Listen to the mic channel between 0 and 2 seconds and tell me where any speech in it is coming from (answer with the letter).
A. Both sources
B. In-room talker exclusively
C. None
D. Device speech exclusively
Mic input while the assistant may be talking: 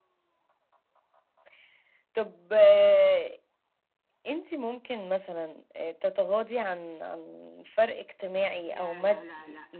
C